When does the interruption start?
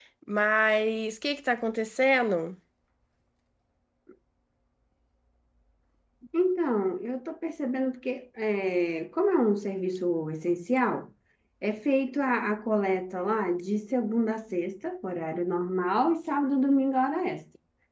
none

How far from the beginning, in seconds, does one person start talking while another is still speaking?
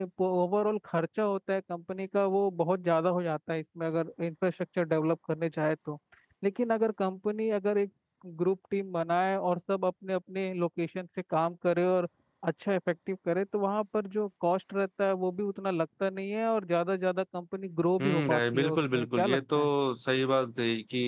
18.0 s

